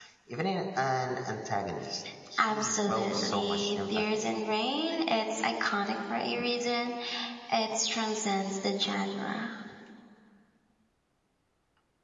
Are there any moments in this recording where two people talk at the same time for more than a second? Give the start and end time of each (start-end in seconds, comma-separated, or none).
2.4-4.2